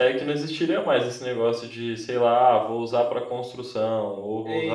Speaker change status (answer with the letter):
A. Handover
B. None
A